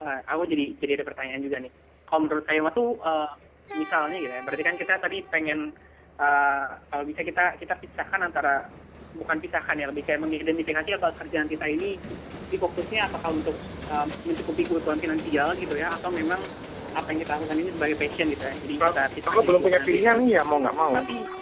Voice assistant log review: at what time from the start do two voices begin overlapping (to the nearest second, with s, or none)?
19 s